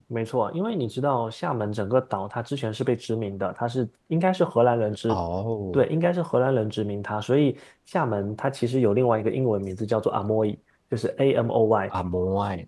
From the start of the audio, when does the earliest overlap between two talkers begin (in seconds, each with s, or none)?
none